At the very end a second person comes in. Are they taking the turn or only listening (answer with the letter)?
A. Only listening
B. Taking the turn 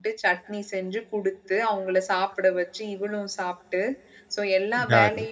A